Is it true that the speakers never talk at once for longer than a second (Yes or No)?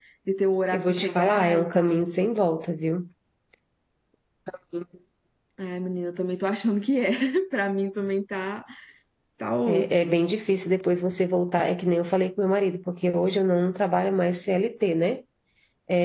No